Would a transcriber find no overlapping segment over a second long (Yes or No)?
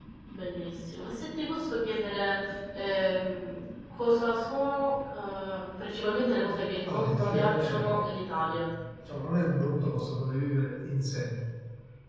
No